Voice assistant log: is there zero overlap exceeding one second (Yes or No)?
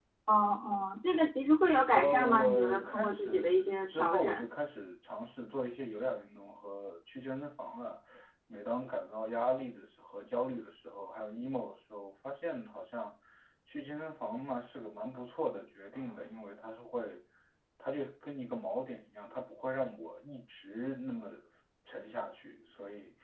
No